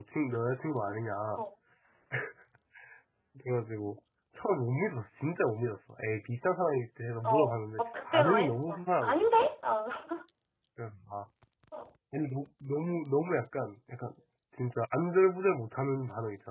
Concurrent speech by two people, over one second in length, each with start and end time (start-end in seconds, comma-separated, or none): 7.2-9.2